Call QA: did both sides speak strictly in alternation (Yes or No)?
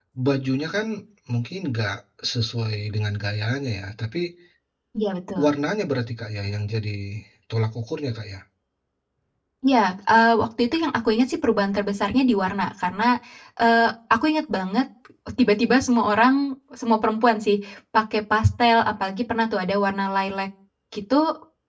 Yes